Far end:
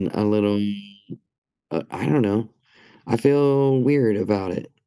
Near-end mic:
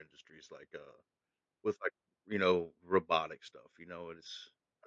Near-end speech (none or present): present